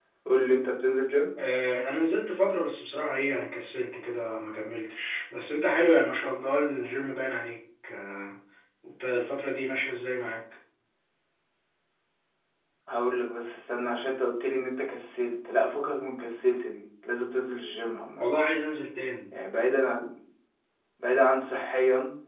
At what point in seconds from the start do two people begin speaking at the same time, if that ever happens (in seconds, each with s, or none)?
none